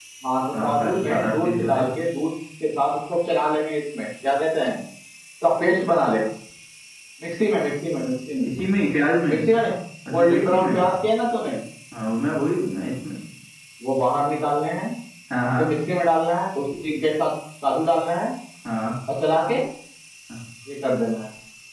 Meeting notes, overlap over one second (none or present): present